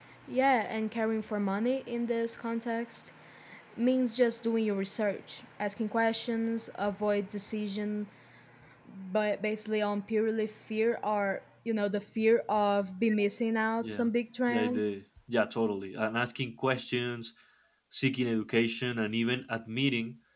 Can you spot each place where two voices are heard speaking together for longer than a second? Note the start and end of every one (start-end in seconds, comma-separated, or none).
none